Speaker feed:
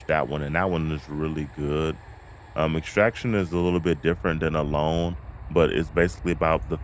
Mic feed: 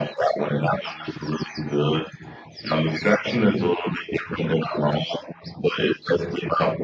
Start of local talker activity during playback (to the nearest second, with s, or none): none